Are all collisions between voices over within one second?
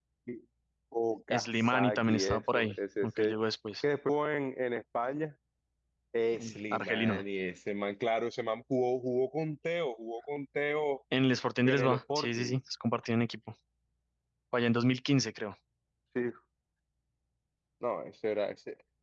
No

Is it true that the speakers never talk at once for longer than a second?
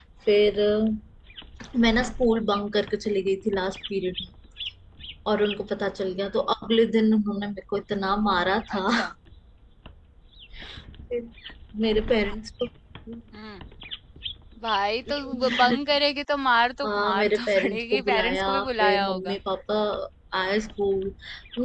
No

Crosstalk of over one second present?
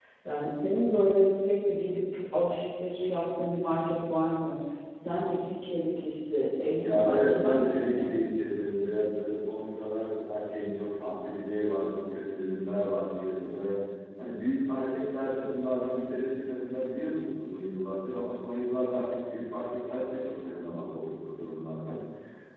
Yes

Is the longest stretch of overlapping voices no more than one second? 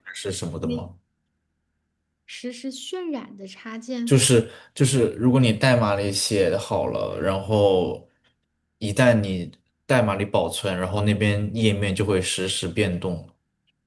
Yes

